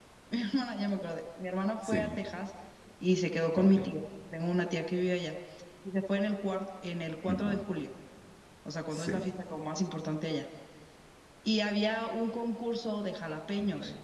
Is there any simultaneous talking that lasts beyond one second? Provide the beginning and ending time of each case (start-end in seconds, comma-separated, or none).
none